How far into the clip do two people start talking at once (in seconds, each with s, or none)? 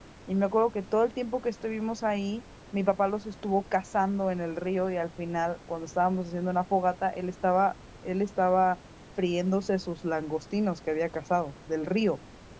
none